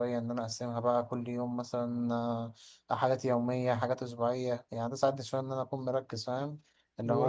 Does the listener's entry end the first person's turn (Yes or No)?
No